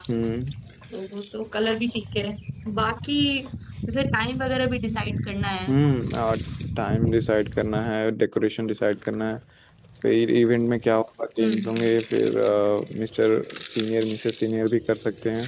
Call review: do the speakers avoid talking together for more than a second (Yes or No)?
Yes